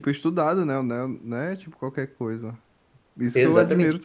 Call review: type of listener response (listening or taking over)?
listening